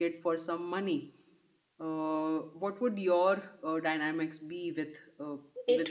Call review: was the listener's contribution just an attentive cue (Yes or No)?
No